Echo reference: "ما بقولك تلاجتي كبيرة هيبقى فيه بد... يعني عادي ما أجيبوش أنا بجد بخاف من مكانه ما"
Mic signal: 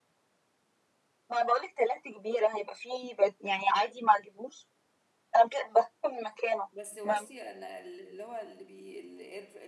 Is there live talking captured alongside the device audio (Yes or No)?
Yes